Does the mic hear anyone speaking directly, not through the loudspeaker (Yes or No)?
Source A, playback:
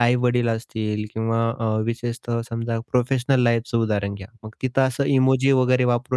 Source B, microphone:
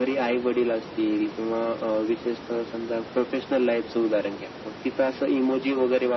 No